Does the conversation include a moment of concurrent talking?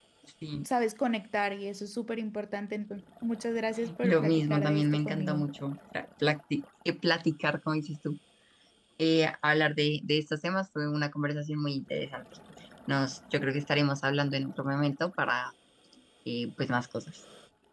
Yes, from 3.8 s

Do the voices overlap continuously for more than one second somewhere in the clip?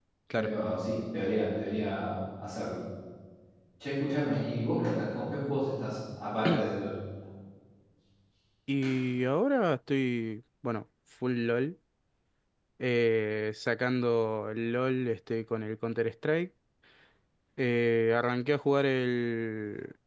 No

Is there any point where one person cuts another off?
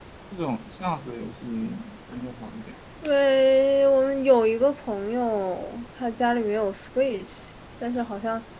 No

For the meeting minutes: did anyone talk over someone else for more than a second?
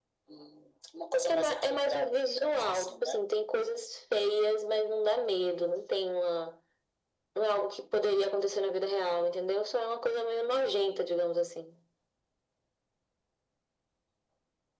Yes, from 1.3 s

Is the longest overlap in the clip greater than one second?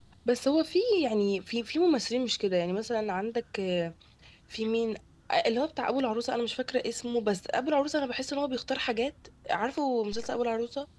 No

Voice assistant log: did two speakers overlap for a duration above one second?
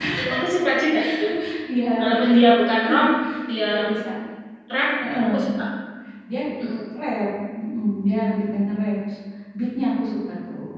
No

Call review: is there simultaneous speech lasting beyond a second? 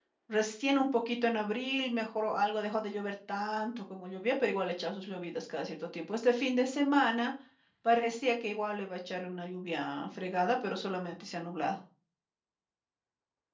No

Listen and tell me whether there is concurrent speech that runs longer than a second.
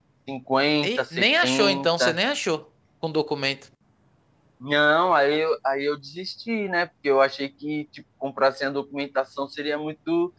Yes, from 0.8 s

